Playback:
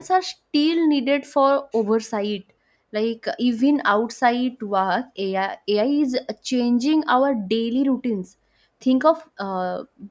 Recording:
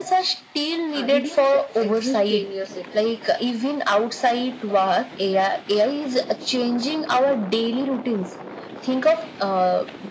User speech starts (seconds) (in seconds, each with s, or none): 0.9 s